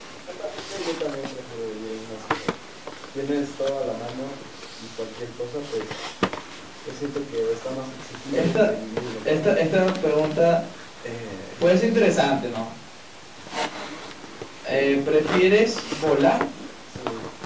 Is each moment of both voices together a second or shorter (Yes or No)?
Yes